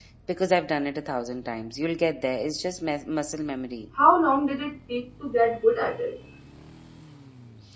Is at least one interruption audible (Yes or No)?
No